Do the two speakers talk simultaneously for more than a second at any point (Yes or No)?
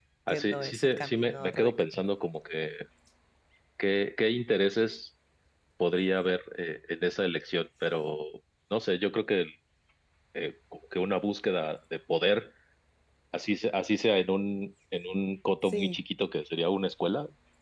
Yes